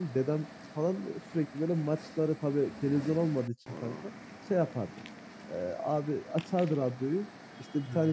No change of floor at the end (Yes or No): Yes